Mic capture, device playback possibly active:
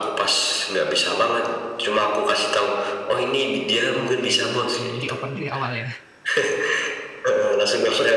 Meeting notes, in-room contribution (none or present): present